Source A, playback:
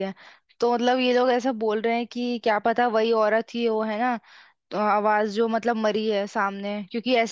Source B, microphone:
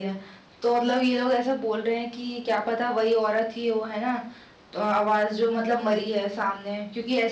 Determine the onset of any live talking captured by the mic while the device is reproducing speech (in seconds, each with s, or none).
none